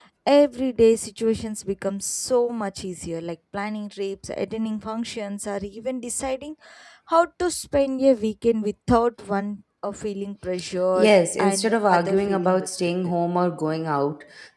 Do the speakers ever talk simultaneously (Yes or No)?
Yes